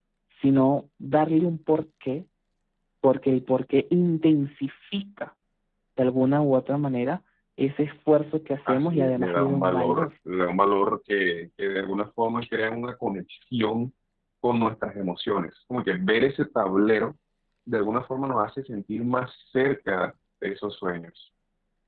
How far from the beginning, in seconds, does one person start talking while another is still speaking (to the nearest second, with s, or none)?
9 s